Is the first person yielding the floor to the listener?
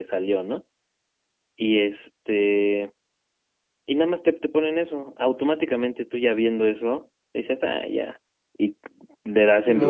No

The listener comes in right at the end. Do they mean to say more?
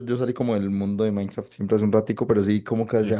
No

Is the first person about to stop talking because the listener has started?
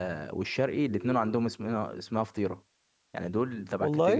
No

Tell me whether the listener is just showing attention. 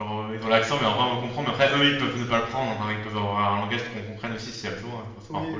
No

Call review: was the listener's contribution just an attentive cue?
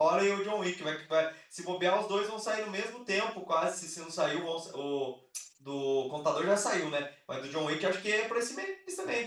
No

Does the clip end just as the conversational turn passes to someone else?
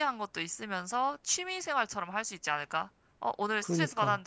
No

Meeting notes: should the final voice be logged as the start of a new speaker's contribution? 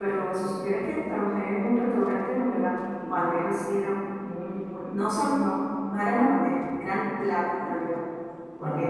No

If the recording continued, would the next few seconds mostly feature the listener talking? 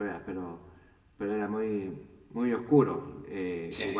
No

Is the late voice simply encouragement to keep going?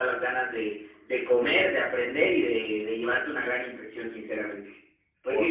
No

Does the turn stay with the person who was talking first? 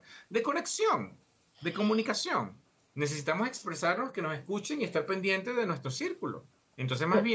Yes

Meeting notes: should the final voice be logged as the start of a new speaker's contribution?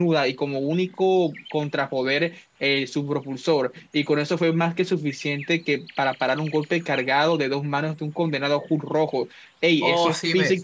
Yes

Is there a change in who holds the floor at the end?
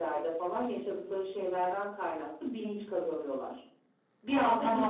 Yes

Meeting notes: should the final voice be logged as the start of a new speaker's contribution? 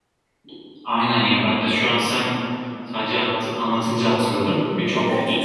Yes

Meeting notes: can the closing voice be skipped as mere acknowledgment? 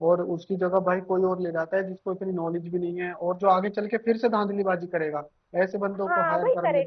No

